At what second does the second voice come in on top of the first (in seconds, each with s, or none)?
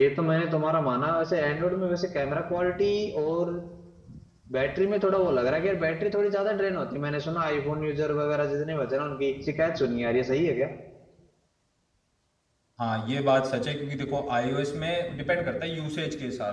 none